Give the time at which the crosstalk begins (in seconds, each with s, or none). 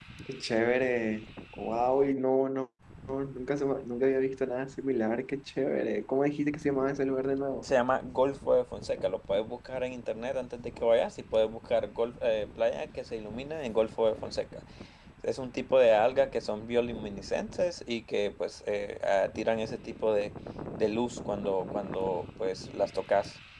none